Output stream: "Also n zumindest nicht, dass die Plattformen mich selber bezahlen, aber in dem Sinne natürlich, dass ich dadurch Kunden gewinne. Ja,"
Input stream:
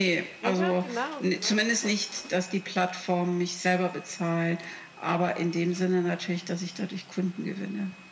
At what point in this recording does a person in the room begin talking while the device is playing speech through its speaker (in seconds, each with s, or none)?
0.4 s